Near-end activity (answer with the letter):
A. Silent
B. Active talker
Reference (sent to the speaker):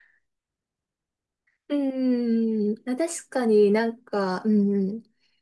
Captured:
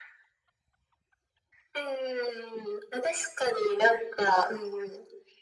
A